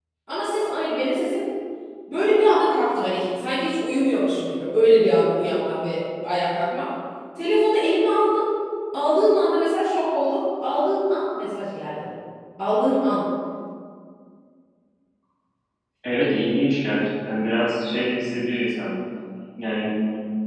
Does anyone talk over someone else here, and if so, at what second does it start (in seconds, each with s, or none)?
none